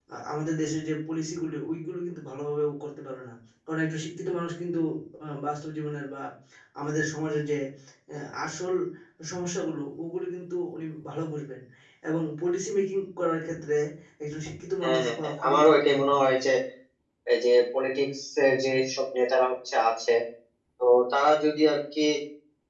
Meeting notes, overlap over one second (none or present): present